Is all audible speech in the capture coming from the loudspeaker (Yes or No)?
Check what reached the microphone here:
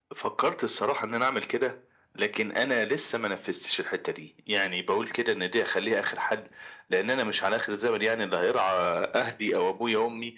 Yes